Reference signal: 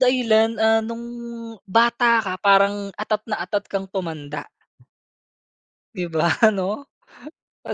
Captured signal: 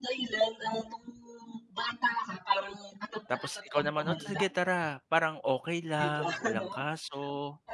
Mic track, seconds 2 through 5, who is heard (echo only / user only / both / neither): both